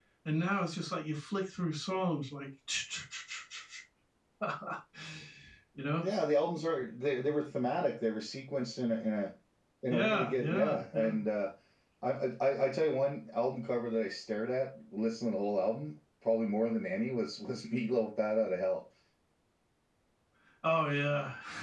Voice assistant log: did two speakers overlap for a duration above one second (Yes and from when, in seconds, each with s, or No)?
Yes, from 9.9 s